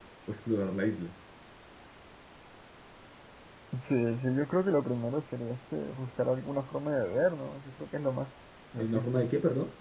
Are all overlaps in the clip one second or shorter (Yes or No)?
Yes